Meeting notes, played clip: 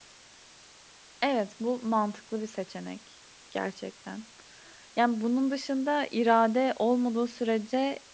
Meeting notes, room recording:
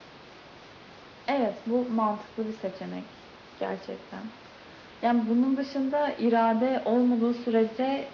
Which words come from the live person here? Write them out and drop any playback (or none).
none